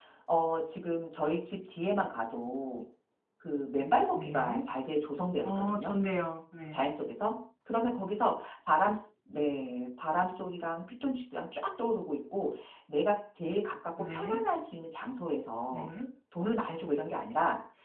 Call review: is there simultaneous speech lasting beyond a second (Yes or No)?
No